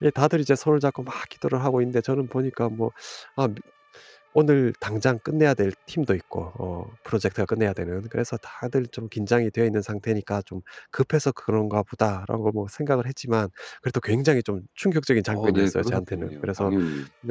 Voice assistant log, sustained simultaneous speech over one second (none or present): present